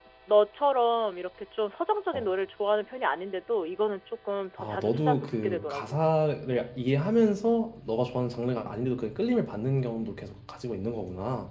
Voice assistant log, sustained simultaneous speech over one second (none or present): present